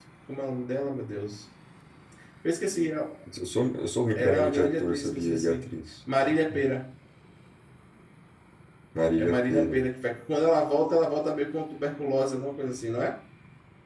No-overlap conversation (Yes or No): No